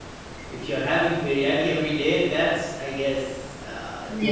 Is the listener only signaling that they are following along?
No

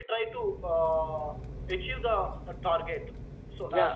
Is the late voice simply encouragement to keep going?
No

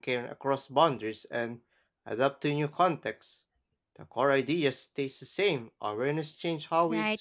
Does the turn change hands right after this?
Yes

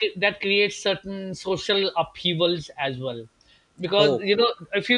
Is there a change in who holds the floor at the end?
No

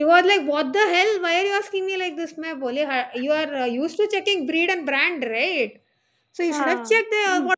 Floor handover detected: No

